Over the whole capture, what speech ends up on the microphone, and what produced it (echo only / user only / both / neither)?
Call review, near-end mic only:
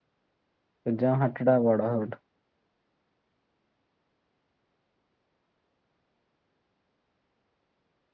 user only